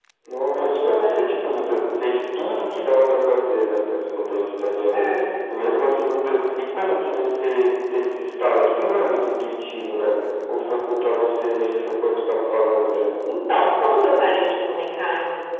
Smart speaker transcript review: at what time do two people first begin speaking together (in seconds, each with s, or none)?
0.5 s